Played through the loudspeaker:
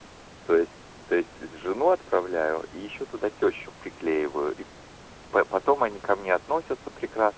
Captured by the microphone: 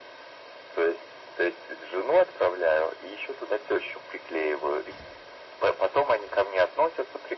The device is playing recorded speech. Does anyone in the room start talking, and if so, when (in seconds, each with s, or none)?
none